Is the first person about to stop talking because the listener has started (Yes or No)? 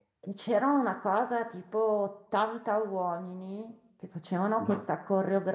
No